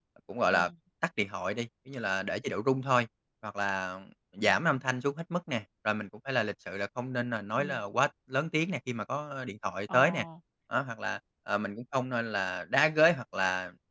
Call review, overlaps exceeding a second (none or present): none